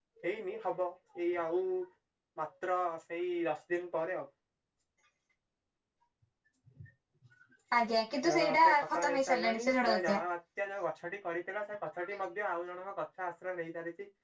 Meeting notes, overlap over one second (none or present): present